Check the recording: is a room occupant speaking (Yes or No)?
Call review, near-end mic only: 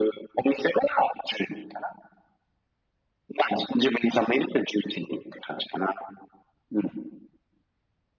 No